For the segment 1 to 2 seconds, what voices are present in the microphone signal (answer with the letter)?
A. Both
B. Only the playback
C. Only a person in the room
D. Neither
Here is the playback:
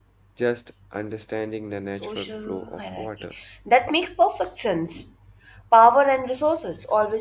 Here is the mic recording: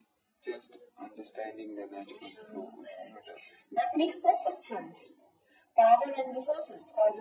B